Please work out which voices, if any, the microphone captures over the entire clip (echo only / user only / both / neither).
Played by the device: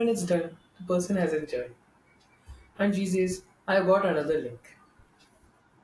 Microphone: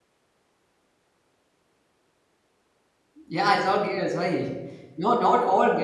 user only